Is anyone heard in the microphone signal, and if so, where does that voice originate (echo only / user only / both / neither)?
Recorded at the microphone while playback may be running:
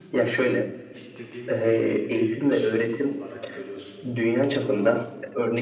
both